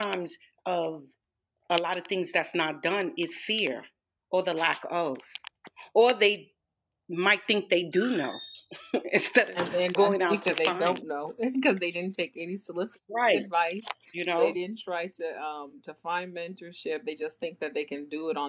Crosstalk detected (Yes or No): Yes